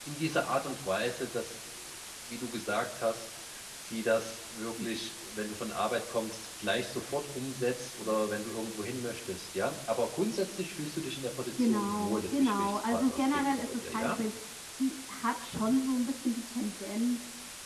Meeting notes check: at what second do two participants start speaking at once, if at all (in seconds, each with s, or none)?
11.6 s